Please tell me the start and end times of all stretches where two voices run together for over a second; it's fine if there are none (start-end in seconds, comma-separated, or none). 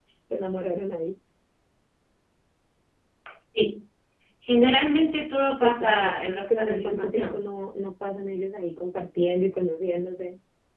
5.6-7.4